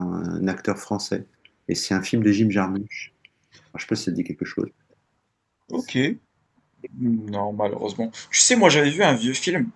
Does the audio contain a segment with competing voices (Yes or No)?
No